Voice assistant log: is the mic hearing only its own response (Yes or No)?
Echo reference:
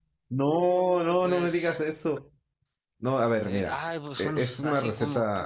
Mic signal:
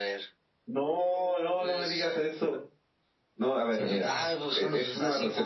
No